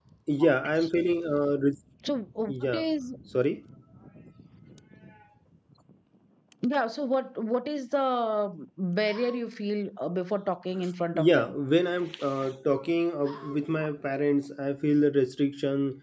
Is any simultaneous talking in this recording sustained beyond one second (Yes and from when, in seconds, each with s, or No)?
No